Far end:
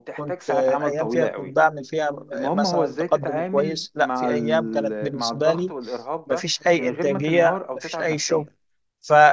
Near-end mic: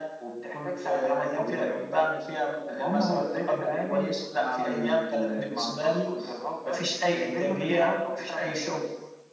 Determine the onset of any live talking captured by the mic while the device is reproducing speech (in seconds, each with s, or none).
none